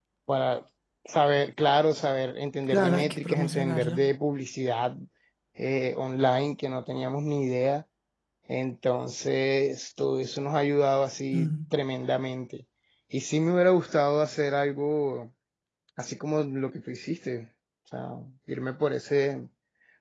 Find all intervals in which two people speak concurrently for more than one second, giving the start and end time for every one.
2.7-4.0

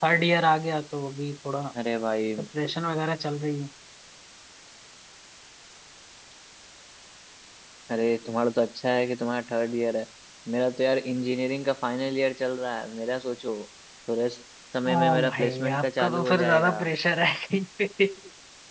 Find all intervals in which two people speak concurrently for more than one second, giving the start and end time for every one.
14.9-16.7

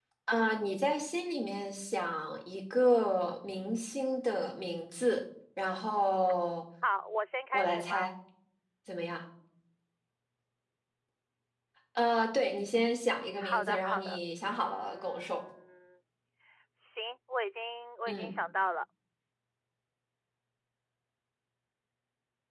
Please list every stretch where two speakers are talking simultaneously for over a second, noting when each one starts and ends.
13.4-15.4

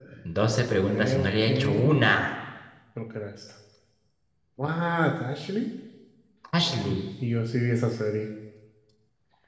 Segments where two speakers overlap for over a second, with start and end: 0.8-2.1

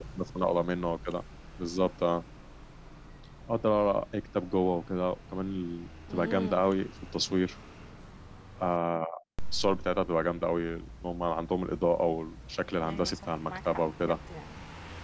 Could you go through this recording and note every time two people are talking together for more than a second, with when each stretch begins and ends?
12.8-14.2

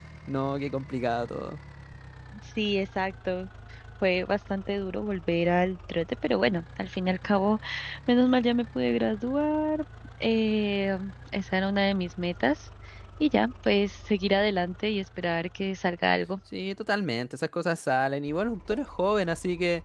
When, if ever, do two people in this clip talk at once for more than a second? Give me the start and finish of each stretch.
none

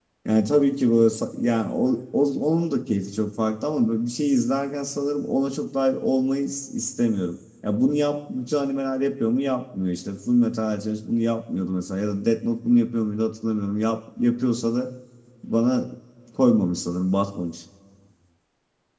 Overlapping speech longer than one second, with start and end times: none

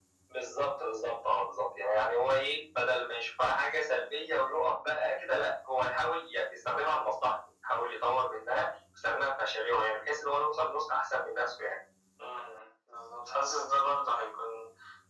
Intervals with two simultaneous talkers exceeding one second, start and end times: none

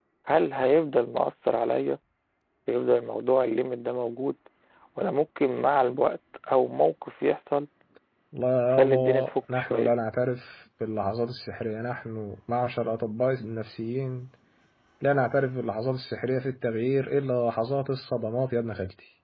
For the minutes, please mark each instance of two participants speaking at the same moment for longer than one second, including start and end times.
8.7-9.9

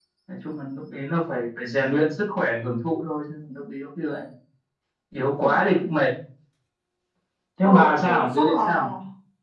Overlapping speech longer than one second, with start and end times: 7.6-8.9

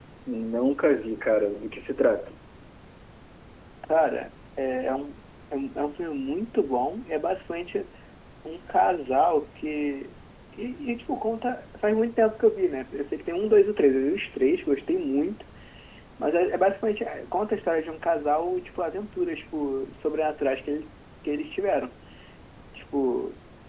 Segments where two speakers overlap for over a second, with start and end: none

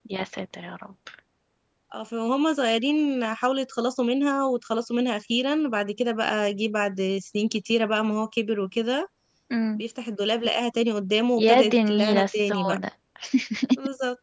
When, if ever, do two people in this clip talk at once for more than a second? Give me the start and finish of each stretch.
11.4-12.8

